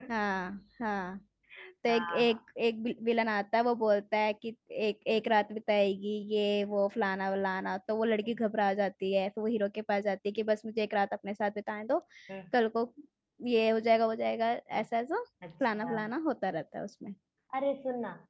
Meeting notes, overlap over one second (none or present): none